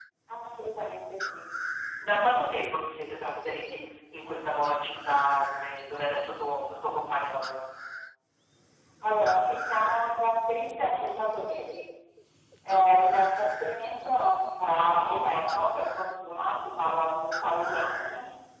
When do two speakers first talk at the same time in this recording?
none

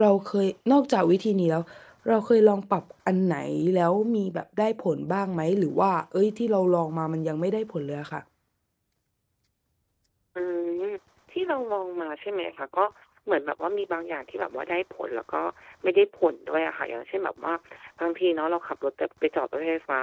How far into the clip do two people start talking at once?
none

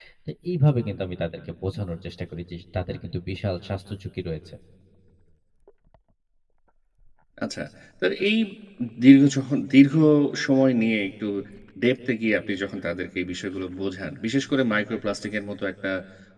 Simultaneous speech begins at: none

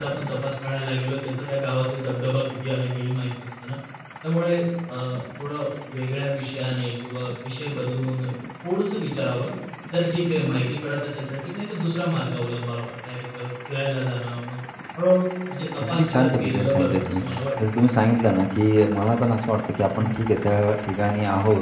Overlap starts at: 15.8 s

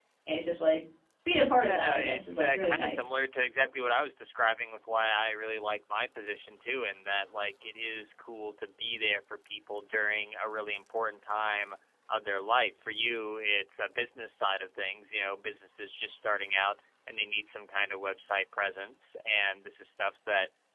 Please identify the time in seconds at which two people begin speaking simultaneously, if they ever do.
1.6 s

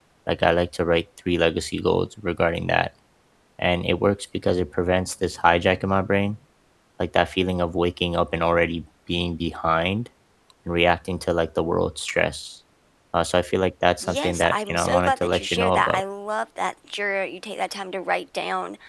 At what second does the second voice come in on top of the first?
14.0 s

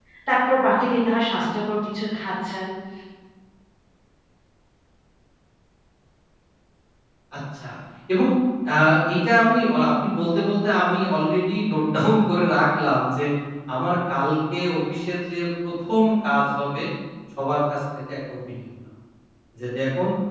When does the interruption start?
none

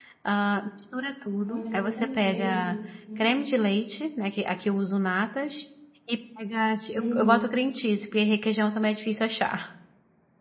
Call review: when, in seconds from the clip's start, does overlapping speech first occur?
1.4 s

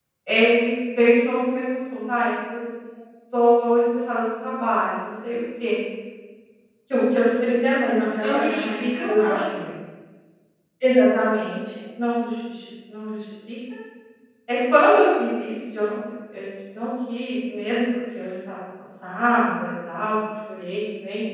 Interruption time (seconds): 8.2 s

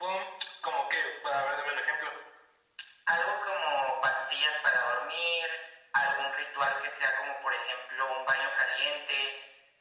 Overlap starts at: none

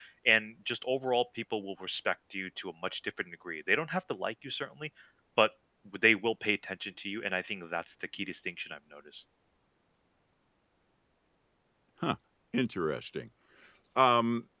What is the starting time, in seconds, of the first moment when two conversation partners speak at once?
none

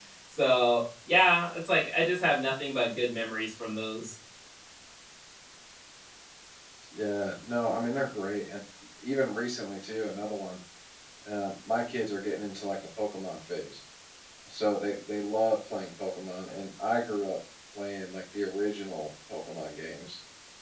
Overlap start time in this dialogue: none

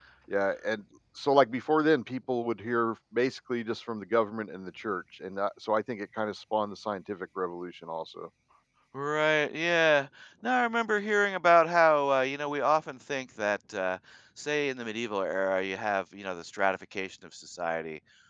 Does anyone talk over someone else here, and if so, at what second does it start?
none

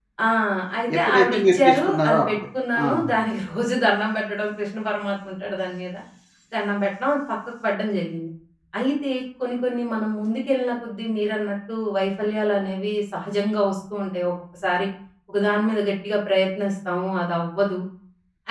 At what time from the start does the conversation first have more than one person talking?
1.0 s

